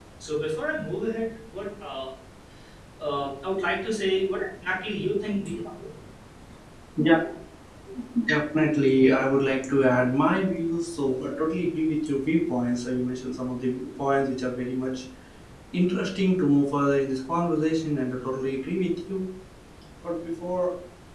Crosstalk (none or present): none